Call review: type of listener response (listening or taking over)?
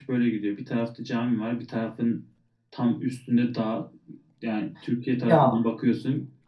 listening